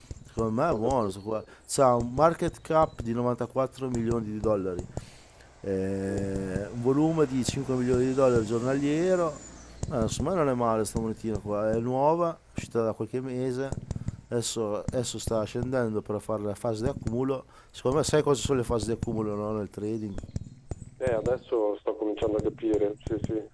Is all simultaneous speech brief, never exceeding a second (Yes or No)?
Yes